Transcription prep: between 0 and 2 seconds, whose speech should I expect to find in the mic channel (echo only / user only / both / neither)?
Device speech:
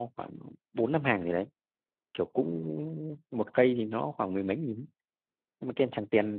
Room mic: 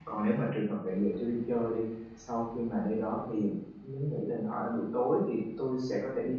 user only